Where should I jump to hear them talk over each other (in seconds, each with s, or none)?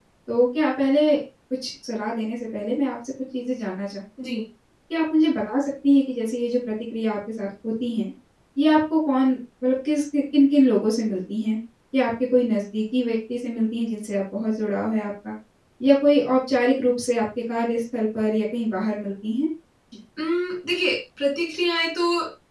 none